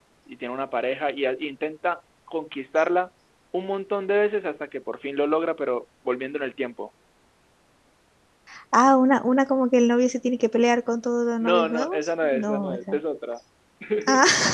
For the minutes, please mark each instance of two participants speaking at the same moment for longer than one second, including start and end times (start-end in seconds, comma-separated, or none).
11.4-13.0